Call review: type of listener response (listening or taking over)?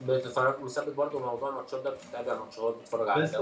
taking over